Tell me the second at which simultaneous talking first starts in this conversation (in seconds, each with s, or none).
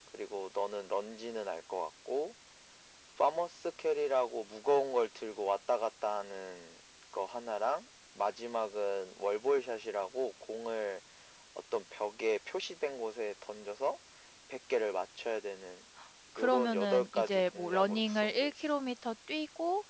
16.4 s